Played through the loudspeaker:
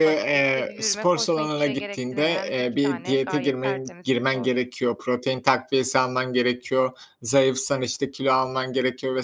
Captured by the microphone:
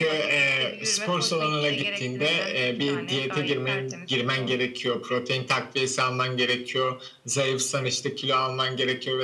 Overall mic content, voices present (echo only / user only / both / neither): echo only